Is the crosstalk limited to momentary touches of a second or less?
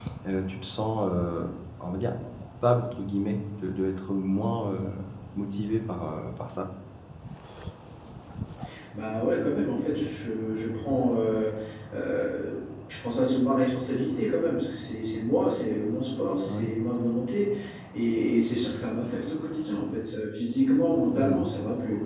Yes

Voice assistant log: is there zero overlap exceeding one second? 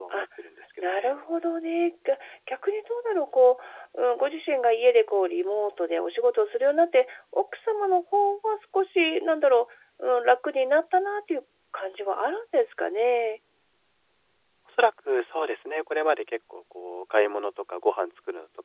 Yes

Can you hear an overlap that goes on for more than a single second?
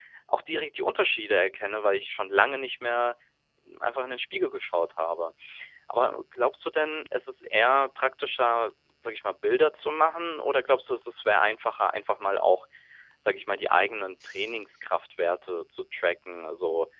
No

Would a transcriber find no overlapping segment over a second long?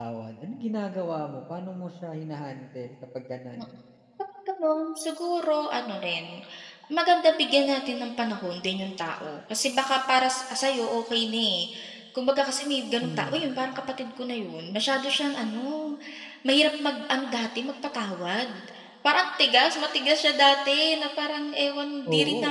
Yes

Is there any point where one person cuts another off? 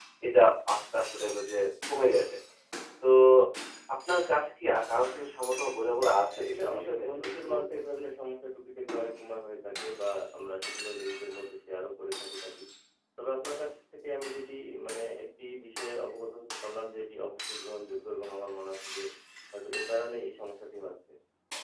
Yes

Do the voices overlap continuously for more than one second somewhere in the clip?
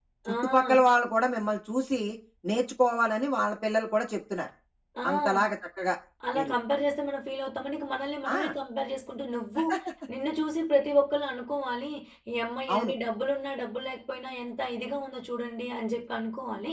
No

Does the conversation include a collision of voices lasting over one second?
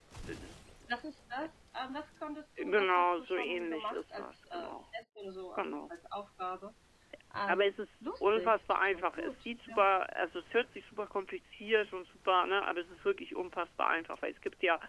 Yes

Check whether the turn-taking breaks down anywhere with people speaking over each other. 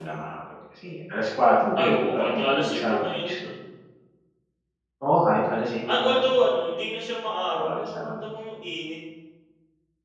Yes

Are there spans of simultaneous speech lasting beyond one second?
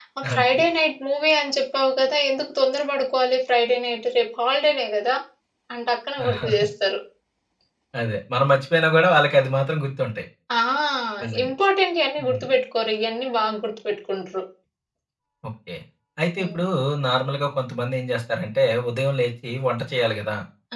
No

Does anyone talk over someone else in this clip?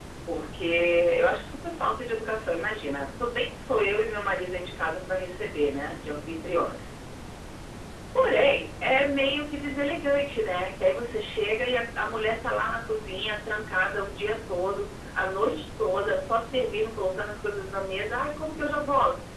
No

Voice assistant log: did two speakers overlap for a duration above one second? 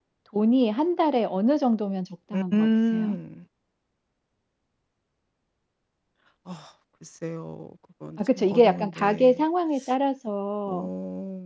Yes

